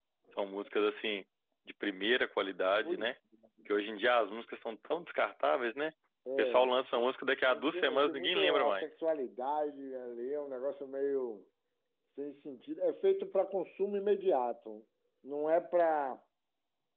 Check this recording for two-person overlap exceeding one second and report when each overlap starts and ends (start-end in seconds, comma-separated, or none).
7.5-9.0